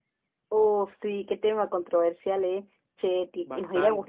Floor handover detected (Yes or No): No